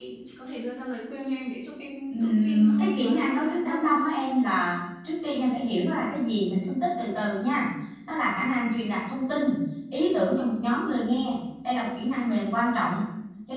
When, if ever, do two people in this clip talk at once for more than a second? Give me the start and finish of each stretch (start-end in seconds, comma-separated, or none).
2.1-4.1